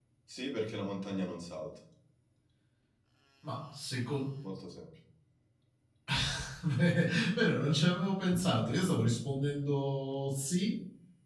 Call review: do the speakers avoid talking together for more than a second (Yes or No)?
Yes